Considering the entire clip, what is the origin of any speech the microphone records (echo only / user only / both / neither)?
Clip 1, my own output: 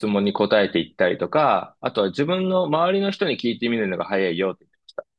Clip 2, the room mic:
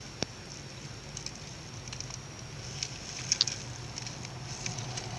neither